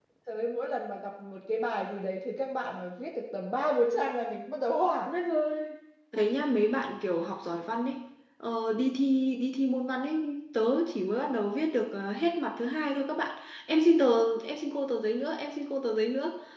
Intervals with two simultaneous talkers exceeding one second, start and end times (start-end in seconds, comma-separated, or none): none